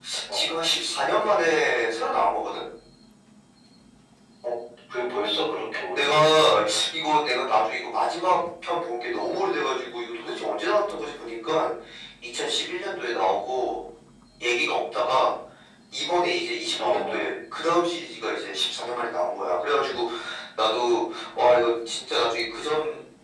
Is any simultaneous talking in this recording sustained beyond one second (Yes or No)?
No